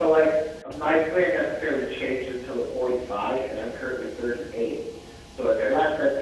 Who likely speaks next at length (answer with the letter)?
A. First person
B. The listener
A